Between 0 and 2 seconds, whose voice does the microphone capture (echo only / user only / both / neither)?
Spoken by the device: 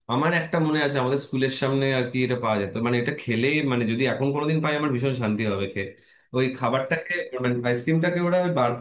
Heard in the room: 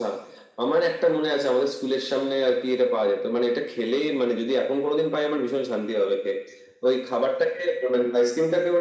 echo only